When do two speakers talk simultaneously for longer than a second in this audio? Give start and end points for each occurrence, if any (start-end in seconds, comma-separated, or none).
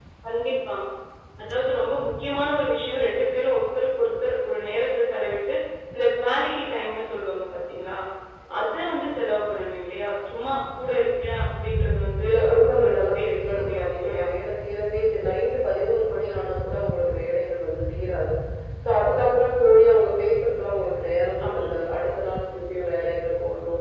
12.2-14.2